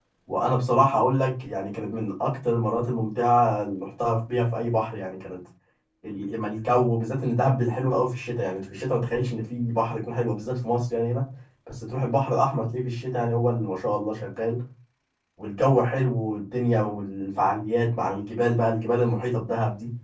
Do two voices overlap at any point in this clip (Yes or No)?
No